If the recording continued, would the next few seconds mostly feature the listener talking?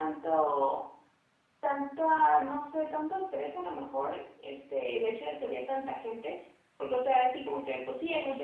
No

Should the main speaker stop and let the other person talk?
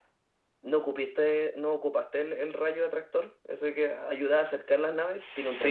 Yes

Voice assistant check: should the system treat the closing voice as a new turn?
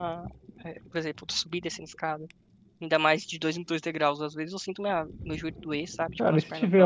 Yes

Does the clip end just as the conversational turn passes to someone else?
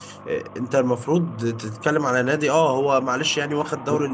No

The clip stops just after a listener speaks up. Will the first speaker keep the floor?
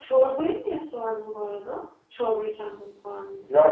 No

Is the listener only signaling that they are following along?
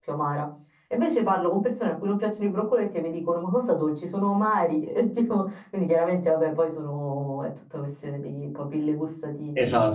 No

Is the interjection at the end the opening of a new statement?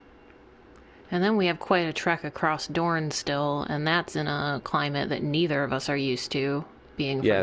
Yes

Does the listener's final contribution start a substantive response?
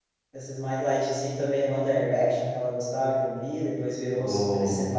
No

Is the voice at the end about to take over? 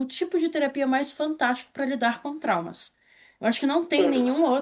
No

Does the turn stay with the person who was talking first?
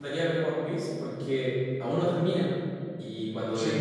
Yes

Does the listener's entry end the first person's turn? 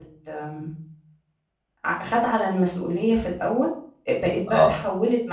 No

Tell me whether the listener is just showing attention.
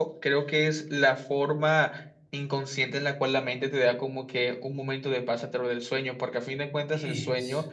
Yes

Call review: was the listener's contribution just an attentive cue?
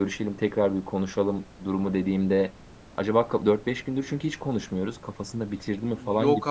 No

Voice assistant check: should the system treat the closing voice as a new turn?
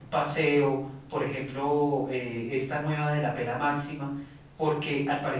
No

